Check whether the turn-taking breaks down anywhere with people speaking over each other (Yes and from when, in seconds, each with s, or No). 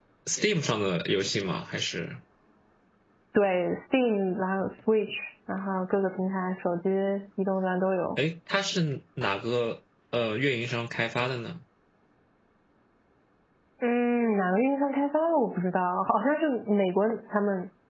No